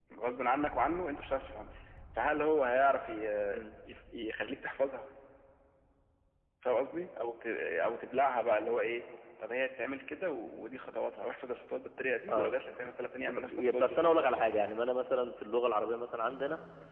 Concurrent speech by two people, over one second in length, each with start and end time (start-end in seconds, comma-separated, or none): 13.3-14.5